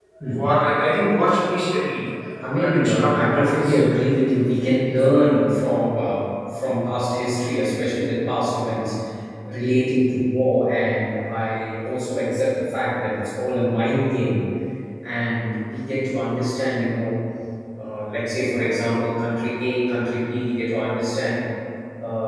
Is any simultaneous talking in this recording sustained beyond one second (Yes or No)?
Yes